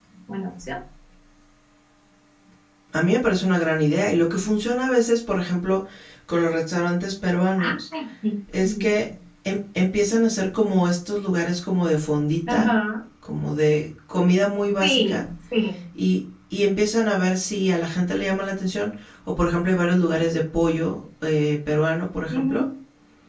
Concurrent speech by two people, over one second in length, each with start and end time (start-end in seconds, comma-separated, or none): none